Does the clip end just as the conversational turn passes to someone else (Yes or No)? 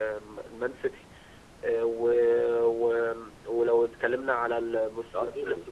No